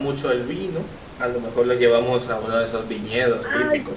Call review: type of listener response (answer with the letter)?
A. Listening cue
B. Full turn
B